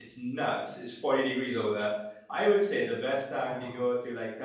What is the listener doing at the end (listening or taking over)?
listening